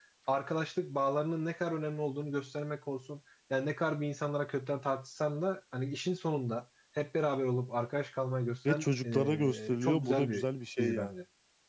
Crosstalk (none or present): present